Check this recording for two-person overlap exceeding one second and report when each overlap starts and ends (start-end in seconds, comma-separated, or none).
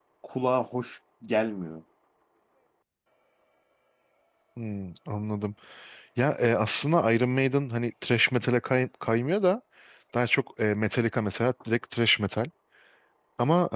none